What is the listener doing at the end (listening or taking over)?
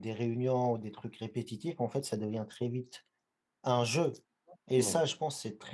listening